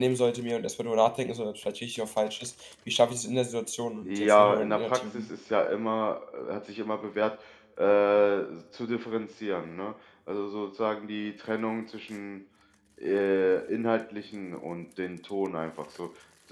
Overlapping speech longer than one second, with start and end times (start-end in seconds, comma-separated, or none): 4.0-5.3